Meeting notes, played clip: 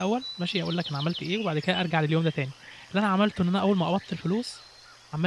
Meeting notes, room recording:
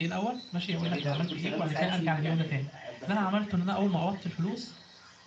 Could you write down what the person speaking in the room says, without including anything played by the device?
جميل أوي، كنت شغال مساعد شيف يعني بس ات

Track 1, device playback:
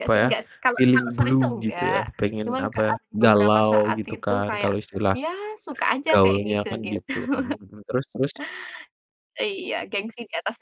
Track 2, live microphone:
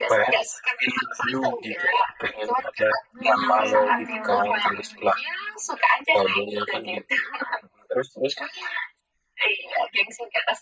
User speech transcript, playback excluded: Bener,

